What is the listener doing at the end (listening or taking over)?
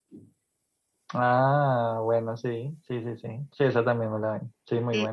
taking over